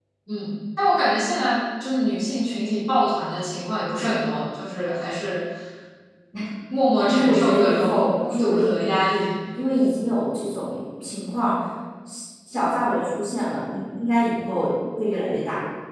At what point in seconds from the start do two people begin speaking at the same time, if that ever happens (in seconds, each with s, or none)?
7.1 s